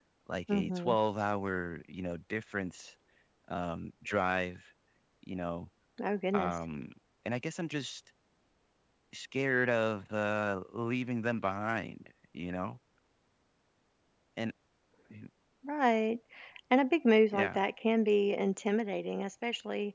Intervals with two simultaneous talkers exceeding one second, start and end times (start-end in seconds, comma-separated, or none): none